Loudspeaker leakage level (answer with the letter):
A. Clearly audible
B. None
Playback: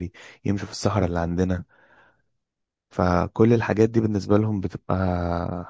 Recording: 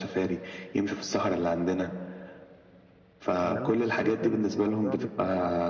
A